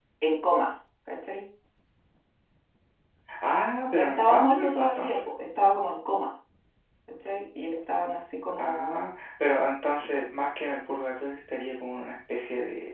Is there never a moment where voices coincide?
No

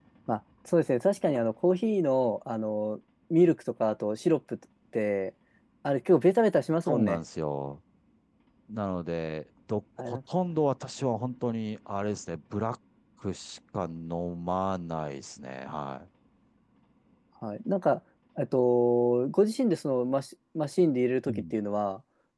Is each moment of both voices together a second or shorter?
Yes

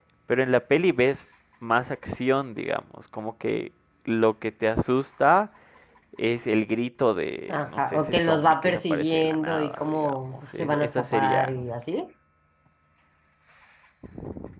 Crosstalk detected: Yes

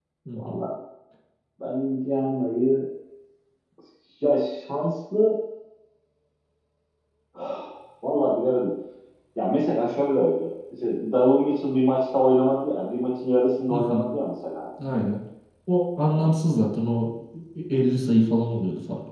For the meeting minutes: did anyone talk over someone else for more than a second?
No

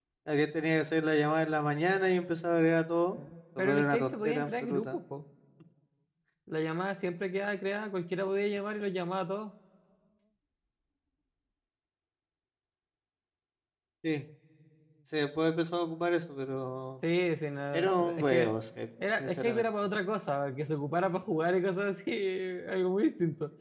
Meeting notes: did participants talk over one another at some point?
Yes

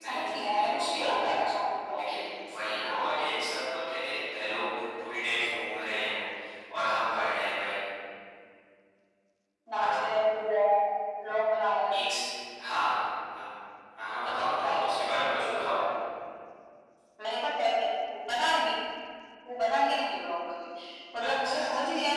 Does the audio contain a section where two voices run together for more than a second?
Yes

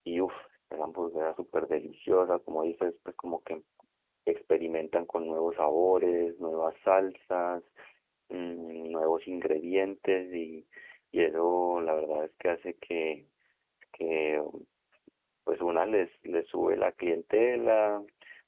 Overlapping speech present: No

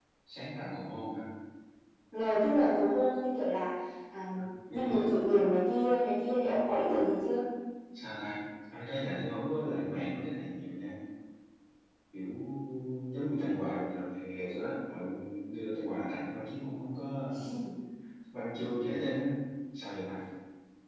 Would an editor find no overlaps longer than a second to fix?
Yes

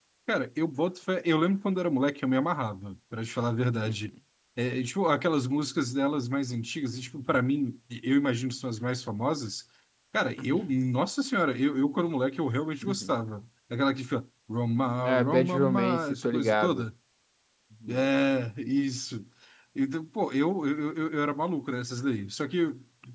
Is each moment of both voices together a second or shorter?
No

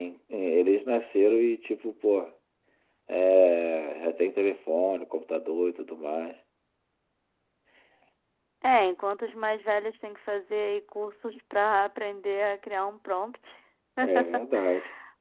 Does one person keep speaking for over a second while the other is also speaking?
No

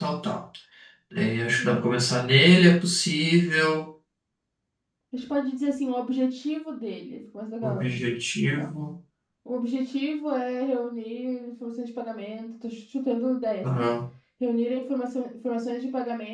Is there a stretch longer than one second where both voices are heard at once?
No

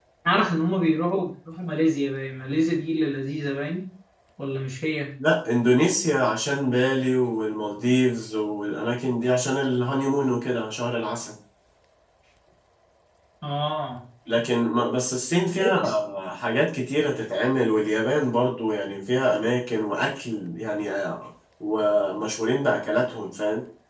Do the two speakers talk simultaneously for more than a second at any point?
No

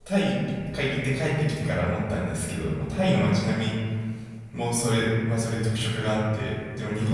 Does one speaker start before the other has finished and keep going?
No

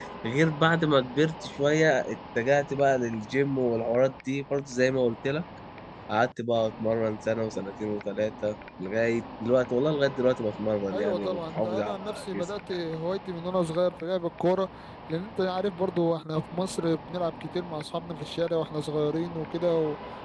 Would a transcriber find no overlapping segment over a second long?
No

